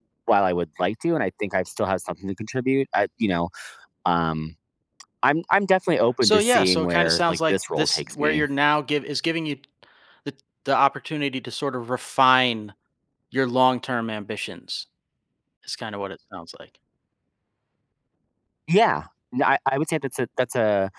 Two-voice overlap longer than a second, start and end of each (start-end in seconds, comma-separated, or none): 6.2-8.4